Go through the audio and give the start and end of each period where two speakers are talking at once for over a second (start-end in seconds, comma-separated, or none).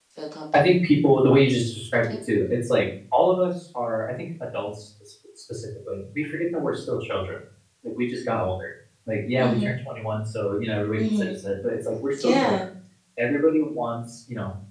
none